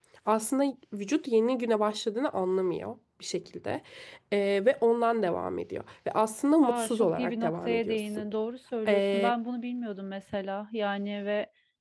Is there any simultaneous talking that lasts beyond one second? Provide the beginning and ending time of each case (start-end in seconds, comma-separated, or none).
6.6-8.2